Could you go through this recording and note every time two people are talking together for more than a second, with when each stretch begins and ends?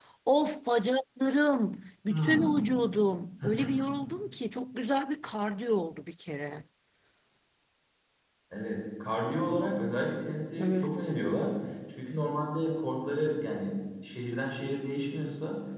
none

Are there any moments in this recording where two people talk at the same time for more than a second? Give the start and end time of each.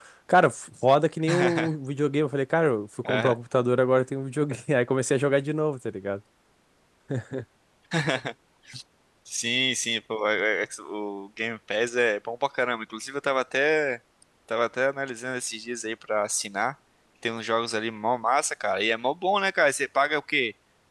none

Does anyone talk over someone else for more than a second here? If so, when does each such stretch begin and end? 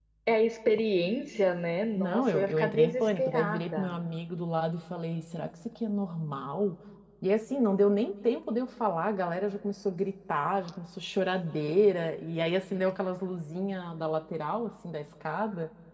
1.9-4.0

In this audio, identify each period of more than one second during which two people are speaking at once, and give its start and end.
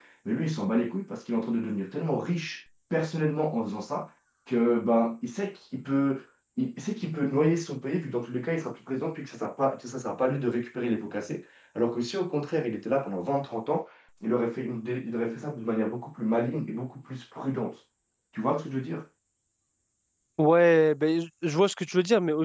none

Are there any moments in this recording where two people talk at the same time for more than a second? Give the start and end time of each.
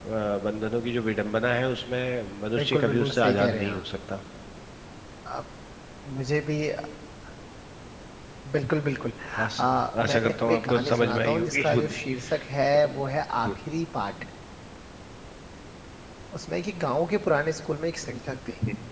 2.6-3.8, 10.0-11.9

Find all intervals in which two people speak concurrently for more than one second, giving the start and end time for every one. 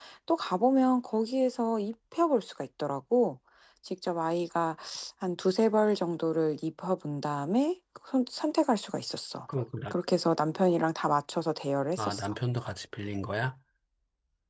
none

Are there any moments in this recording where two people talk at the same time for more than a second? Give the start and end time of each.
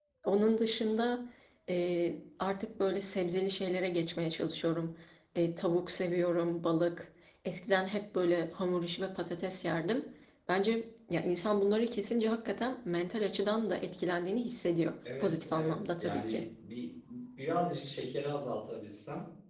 15.0-16.4

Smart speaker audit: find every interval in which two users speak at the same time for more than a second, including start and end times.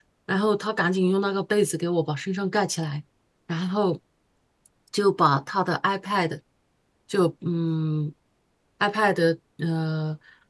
none

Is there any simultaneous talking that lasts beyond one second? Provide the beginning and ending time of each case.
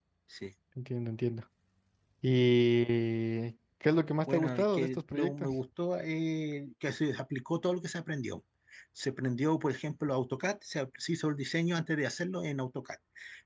4.3-5.6

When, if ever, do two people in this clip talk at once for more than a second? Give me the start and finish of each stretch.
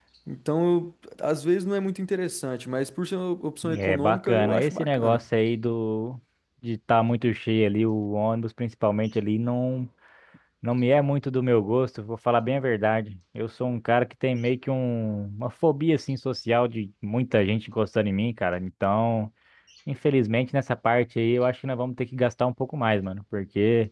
3.8-5.2

